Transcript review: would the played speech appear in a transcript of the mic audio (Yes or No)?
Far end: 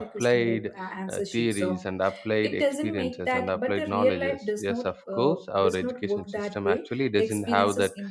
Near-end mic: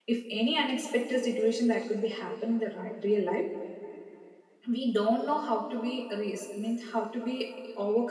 No